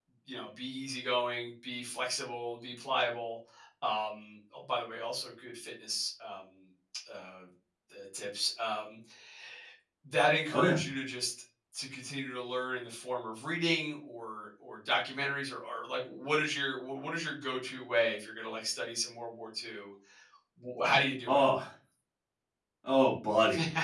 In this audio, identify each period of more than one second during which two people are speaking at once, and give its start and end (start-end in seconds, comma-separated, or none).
none